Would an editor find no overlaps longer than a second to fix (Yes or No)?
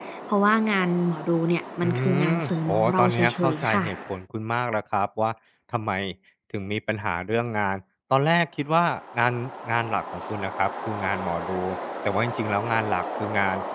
No